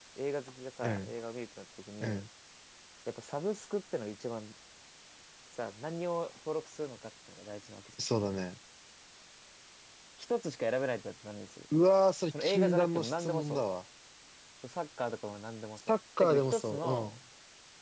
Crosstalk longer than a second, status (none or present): present